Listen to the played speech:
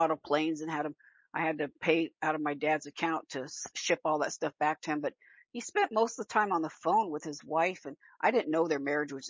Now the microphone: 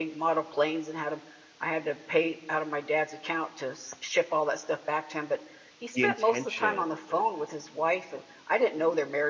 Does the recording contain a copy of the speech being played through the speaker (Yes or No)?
Yes